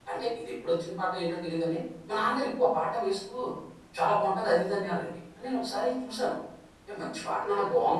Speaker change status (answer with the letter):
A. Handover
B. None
B